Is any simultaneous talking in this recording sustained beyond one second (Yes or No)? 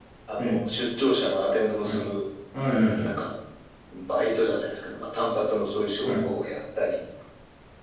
No